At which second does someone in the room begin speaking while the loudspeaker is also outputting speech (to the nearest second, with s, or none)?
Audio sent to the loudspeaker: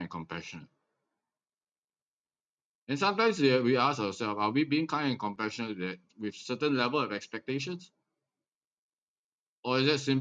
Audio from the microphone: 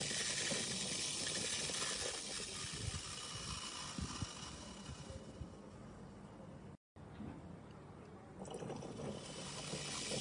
none